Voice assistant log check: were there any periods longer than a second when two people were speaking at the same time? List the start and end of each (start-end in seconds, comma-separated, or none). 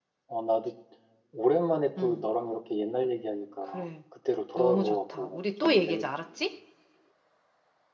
4.6-6.0